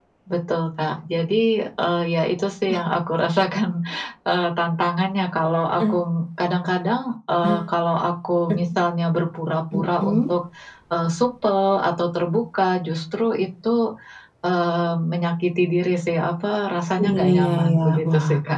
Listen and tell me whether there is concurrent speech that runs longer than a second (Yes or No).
Yes